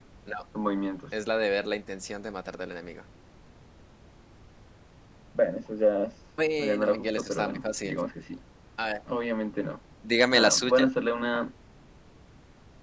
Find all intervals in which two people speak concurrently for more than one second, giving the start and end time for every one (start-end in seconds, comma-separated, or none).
6.6-8.0